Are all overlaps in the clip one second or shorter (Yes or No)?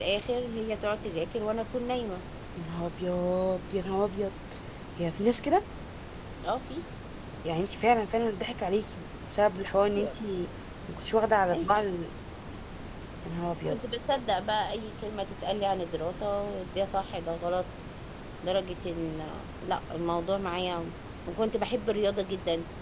Yes